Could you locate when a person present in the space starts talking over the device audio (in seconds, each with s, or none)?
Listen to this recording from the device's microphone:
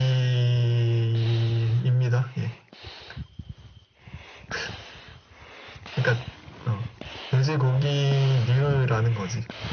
none